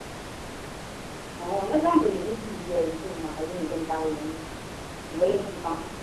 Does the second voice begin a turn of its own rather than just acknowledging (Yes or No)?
Yes